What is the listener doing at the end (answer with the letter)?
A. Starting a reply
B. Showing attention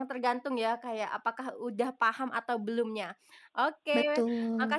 B